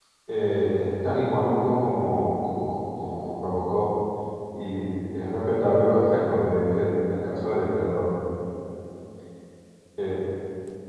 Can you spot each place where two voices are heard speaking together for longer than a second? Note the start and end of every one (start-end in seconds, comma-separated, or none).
none